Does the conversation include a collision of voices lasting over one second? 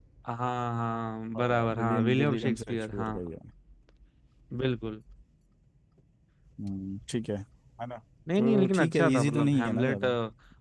Yes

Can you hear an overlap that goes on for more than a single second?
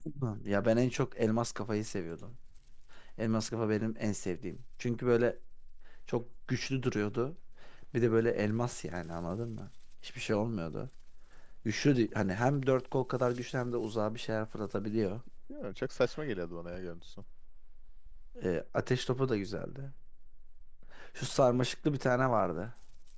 No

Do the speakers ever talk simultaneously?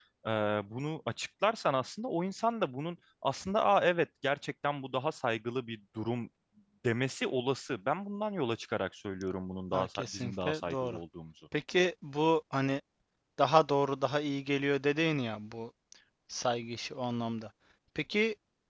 Yes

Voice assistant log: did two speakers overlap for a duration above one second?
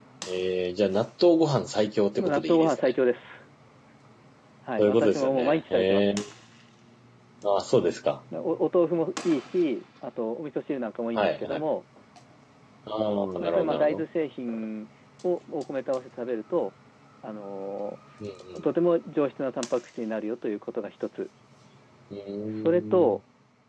Yes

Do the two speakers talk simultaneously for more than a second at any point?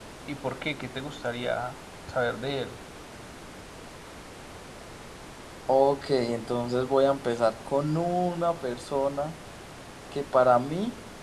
No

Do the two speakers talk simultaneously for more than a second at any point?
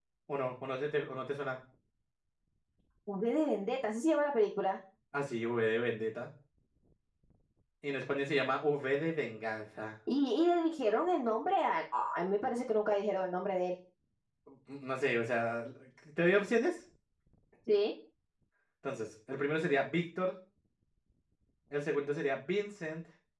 No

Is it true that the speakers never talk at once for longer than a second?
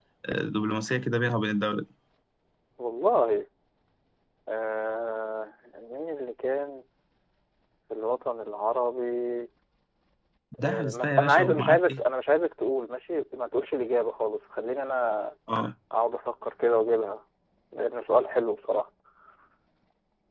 No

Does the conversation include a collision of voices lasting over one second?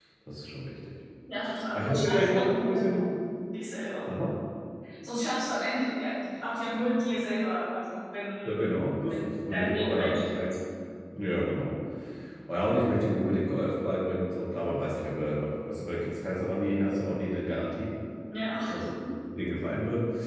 Yes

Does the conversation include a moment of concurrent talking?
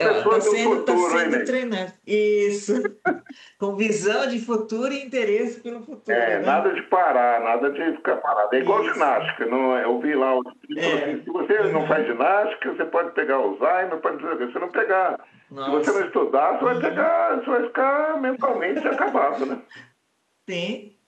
Yes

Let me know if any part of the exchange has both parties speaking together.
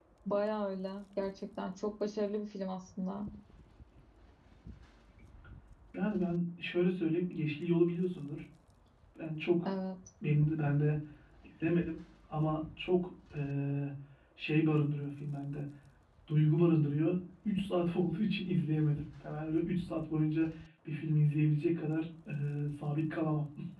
No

